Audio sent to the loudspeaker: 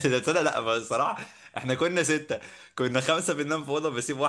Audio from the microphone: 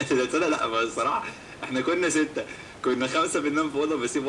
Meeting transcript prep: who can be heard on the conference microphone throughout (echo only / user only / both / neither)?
echo only